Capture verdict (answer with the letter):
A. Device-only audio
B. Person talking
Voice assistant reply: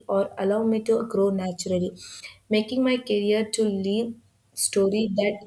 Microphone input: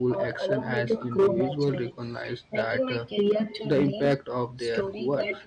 B